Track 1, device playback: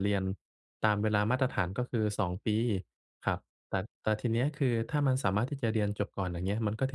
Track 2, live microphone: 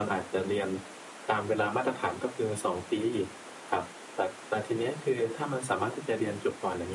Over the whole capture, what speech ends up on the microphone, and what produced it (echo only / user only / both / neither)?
echo only